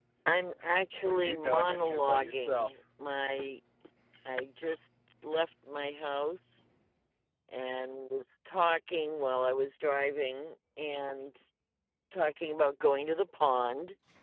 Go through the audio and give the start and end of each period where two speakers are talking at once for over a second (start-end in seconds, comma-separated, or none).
0.9-2.7